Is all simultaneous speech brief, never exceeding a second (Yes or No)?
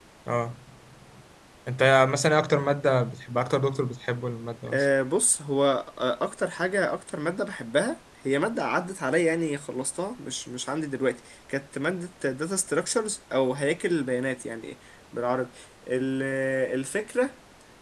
Yes